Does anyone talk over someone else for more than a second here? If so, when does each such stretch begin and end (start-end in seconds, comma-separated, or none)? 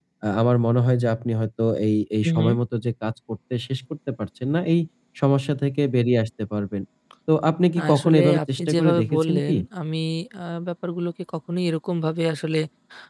7.8-9.6